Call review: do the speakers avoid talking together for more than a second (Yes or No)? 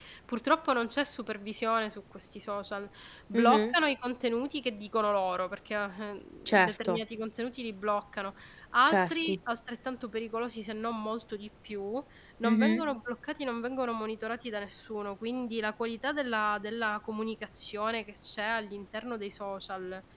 Yes